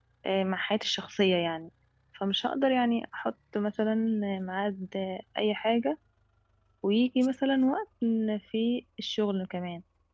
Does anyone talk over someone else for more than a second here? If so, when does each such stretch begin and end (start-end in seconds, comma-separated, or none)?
none